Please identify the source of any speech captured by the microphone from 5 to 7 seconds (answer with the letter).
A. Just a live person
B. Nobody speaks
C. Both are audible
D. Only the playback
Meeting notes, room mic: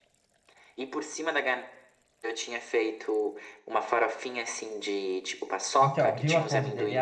C